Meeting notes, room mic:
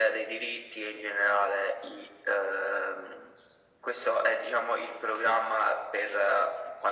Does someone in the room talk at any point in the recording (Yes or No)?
No